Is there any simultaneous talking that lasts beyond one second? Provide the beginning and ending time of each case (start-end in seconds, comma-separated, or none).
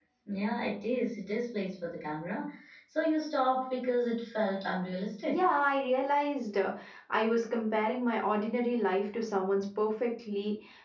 none